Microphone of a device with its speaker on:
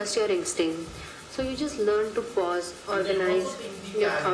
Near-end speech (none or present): present